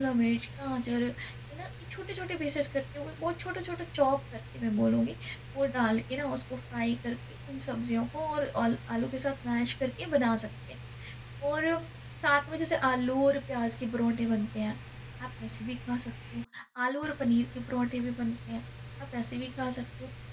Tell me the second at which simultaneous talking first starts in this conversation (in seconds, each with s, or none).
none